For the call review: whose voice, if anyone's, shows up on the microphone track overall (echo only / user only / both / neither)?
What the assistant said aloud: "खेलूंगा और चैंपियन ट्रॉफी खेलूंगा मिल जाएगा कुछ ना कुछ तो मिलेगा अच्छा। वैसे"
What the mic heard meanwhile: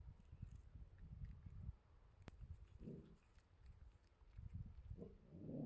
neither